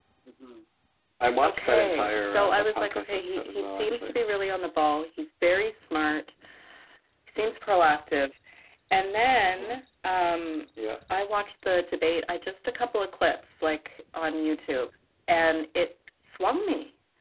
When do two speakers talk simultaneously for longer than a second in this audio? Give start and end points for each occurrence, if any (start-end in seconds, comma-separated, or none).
1.4-4.1